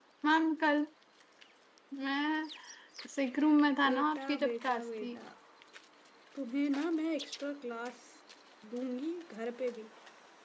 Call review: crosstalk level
present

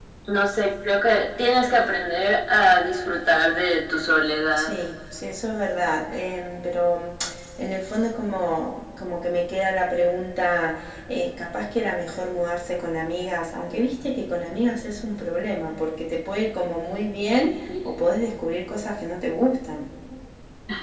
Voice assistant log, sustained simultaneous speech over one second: none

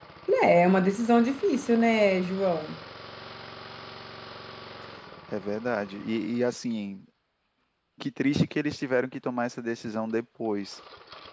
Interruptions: none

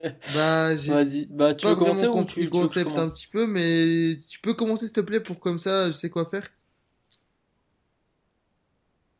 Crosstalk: present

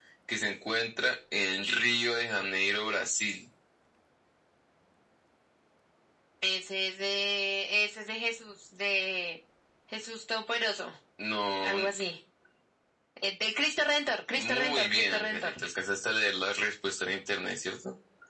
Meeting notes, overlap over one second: present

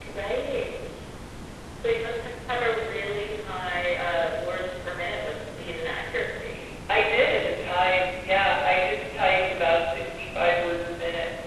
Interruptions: none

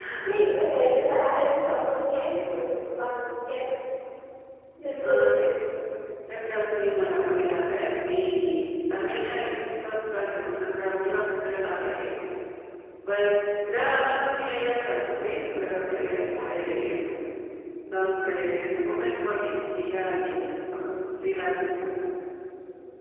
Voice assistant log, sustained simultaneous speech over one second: none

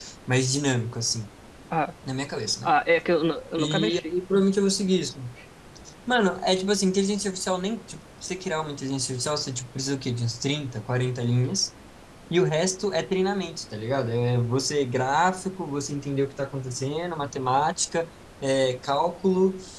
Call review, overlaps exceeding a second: none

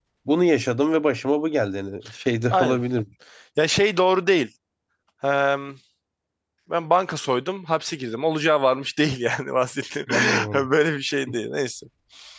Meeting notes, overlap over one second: none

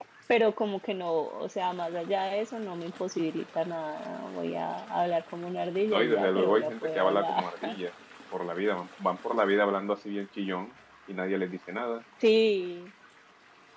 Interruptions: present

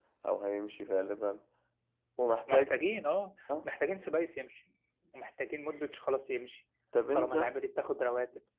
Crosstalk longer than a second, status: none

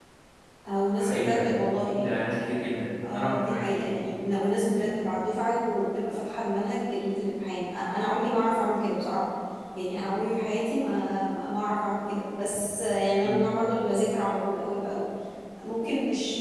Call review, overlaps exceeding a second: none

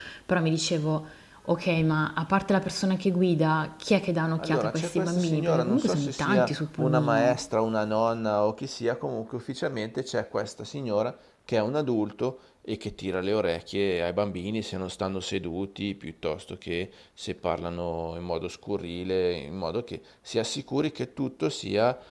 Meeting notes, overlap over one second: present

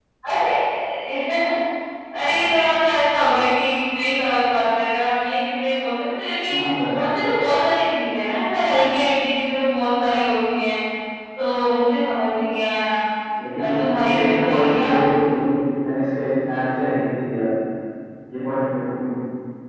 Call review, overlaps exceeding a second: present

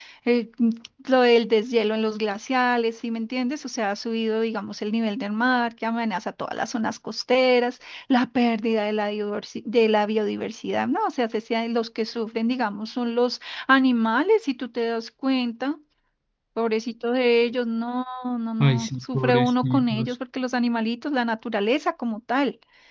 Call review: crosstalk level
present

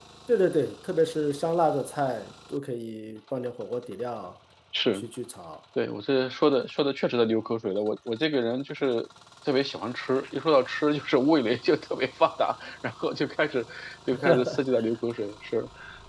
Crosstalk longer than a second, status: none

